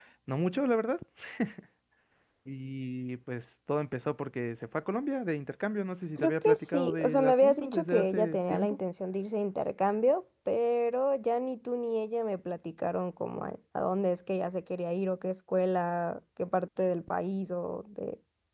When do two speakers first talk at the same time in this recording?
6.2 s

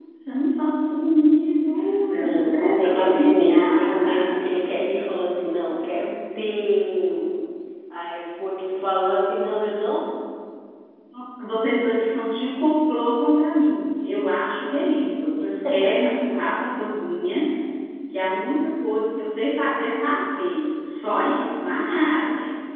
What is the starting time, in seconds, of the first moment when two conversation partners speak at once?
2.1 s

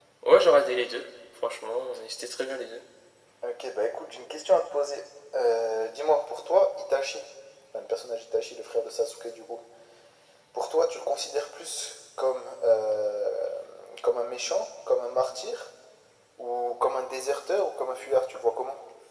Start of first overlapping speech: none

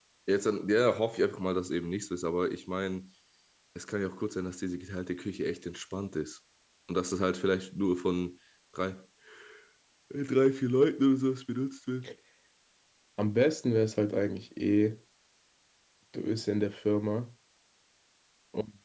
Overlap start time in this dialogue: none

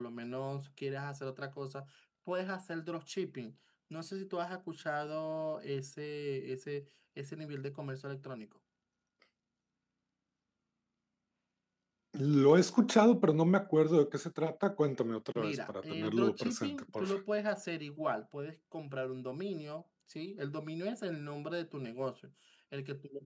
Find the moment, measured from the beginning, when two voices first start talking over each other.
15.4 s

